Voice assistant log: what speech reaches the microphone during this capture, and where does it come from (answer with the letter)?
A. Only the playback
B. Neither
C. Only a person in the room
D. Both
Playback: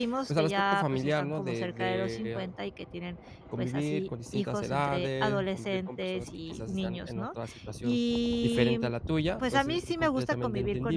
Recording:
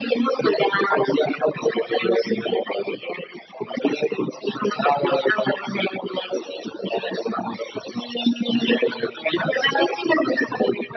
A